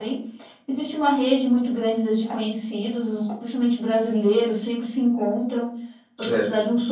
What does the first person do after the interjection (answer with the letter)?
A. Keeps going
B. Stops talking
A